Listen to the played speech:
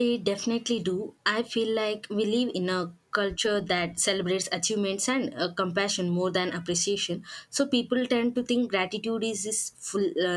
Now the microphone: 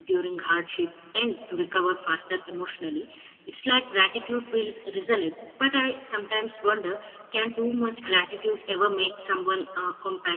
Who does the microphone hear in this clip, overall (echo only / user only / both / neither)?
user only